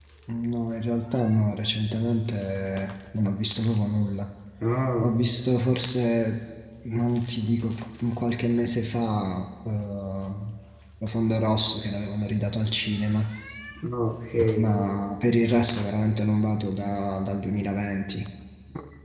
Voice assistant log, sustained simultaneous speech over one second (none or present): none